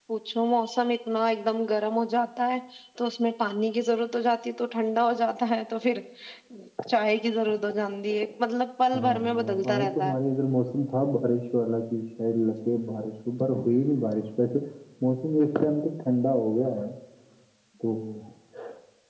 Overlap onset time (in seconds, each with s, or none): 8.9 s